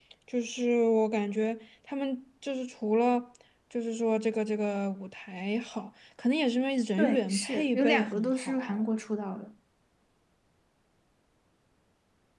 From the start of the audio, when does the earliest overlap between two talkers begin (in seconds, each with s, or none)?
7.0 s